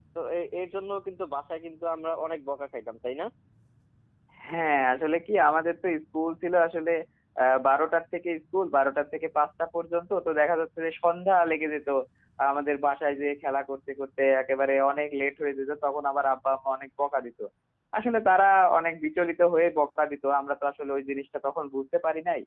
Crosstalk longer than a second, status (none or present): none